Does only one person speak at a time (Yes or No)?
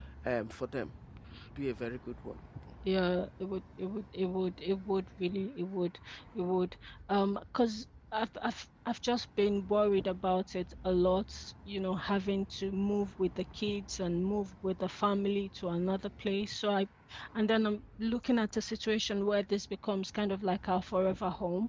Yes